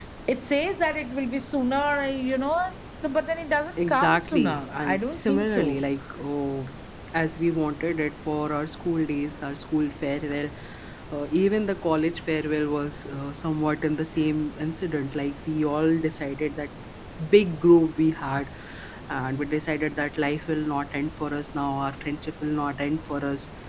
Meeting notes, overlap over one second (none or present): present